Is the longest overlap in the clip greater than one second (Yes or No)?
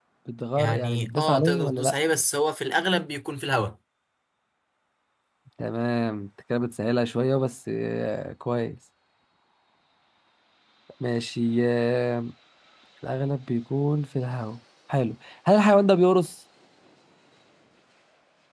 Yes